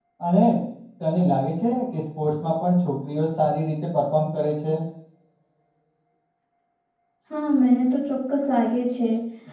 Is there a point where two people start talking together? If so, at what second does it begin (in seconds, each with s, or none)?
none